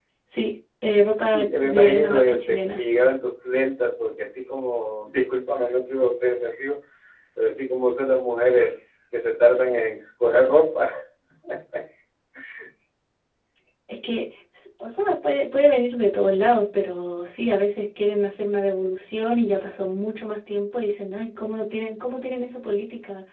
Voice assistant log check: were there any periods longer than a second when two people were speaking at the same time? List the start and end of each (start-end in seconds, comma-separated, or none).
1.3-2.8